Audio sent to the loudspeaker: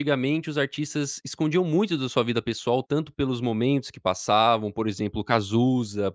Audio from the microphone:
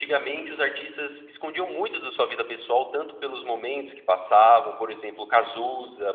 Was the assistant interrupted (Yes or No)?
No